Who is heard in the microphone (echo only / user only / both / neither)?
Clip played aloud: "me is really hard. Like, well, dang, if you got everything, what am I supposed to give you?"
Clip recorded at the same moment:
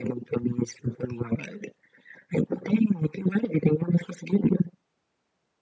echo only